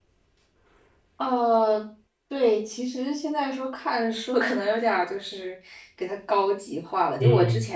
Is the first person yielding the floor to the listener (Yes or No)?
No